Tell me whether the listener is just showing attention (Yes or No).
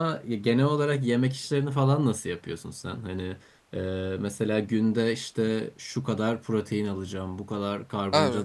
Yes